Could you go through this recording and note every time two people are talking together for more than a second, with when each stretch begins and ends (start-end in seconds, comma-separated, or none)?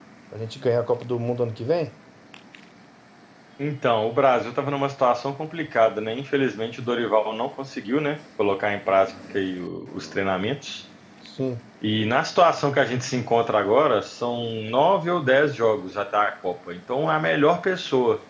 none